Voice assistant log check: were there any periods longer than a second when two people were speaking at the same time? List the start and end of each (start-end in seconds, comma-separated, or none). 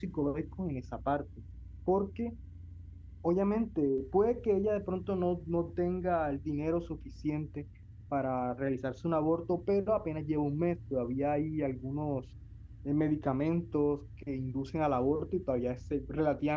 none